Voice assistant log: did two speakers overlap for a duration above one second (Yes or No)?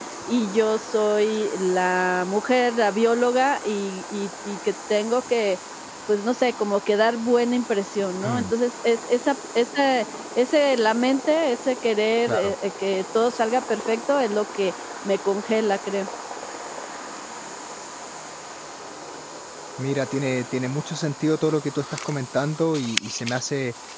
No